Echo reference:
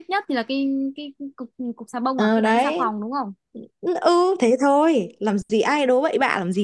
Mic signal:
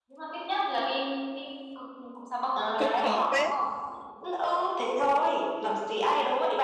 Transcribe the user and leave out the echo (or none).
cũng khó phết.